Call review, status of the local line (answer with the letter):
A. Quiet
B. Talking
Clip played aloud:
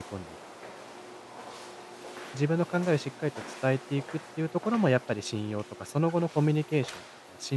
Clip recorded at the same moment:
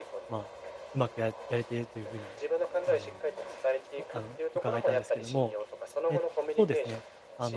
B